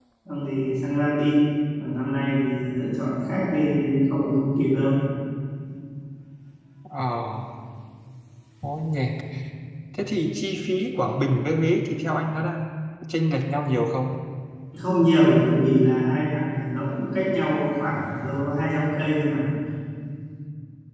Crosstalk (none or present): none